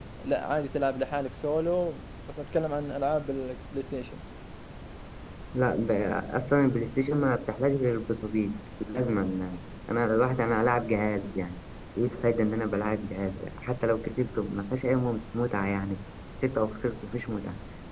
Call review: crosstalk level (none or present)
none